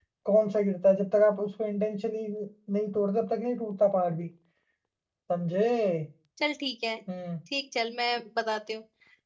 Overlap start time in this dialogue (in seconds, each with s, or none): none